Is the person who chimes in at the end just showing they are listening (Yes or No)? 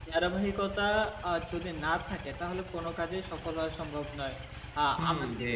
No